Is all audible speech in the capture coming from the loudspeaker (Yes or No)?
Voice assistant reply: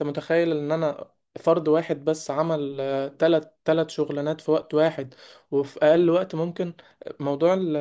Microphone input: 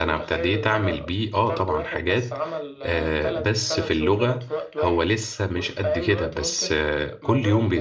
No